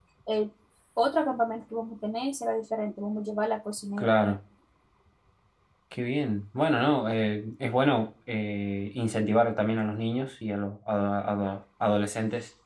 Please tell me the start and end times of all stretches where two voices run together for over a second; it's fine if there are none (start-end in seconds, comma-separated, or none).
none